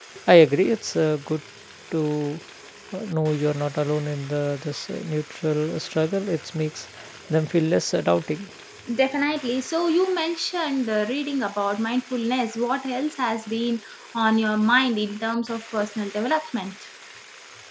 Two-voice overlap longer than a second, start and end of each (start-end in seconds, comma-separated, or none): none